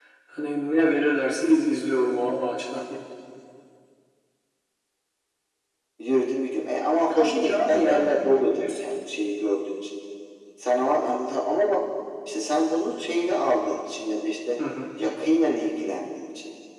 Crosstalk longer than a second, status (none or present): present